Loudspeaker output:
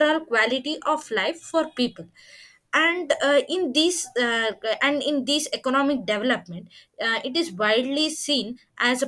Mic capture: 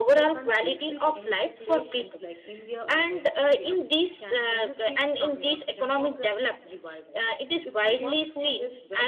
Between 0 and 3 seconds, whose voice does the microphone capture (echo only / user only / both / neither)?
both